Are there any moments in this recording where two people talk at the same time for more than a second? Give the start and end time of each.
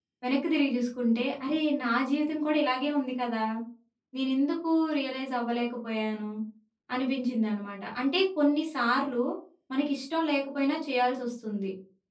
none

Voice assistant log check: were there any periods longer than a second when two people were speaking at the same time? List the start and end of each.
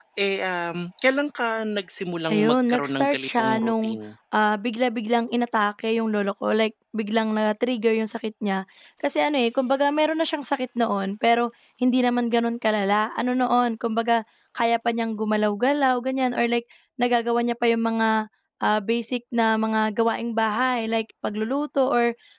2.3-4.0

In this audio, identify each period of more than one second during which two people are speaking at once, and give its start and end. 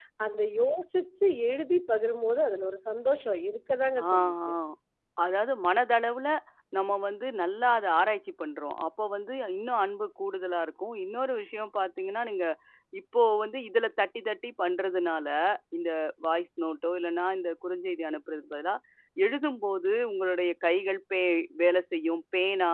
none

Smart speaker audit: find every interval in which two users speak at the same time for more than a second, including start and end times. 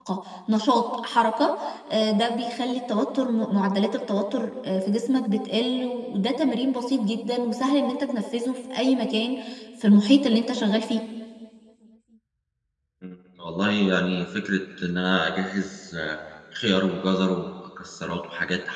none

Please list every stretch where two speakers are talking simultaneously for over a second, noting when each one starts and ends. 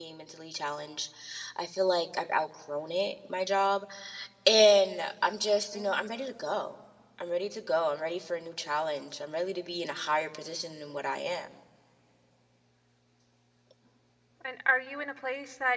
none

